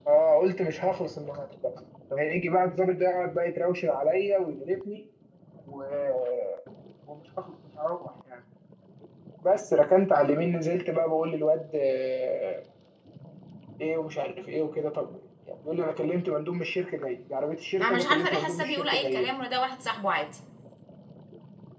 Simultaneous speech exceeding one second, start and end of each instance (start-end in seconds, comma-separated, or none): 17.8-19.3